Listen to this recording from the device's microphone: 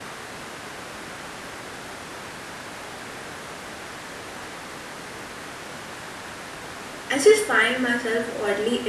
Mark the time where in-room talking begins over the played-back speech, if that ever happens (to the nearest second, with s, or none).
7 s